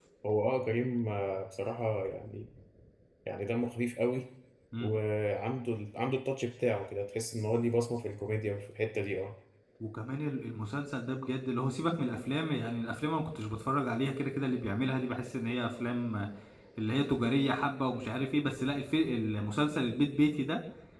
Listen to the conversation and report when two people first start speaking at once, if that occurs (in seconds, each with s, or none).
none